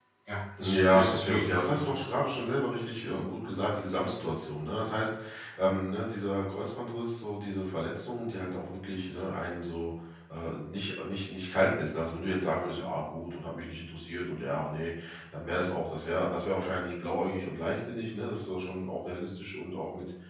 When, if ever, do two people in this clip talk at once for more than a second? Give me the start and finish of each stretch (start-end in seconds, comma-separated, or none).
0.6-2.0